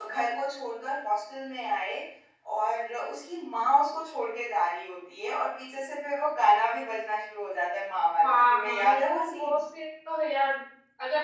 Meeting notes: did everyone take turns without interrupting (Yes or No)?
No